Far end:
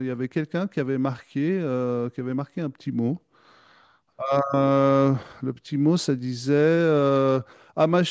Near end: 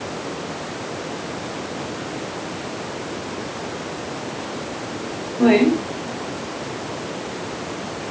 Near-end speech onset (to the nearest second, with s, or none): 5 s